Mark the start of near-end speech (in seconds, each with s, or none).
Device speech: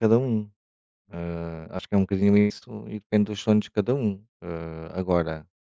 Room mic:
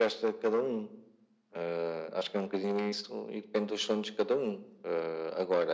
none